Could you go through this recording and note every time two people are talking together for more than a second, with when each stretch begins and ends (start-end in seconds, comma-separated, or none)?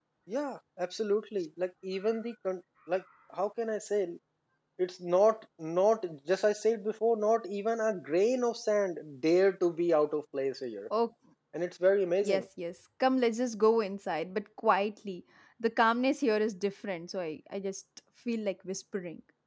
none